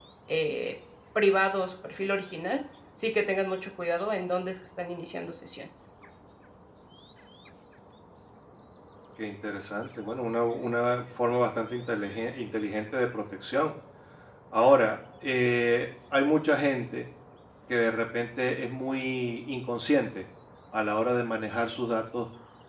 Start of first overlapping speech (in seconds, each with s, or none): none